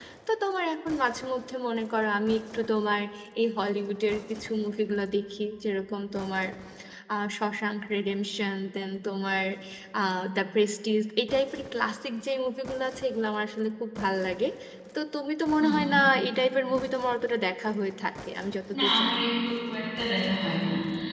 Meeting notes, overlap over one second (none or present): none